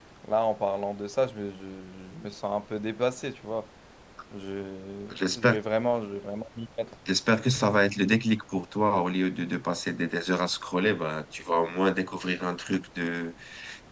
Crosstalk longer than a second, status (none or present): none